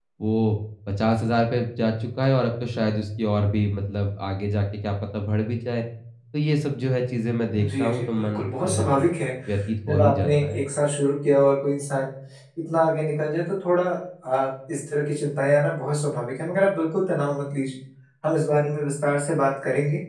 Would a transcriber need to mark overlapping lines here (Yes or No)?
Yes